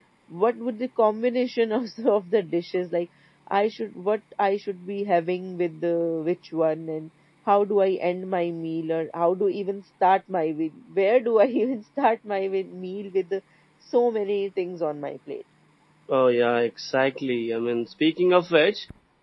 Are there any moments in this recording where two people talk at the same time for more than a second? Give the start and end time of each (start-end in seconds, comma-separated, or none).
none